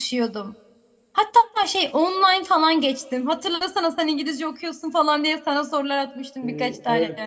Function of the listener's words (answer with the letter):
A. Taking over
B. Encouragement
A